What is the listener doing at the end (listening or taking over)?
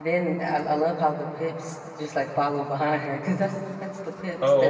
taking over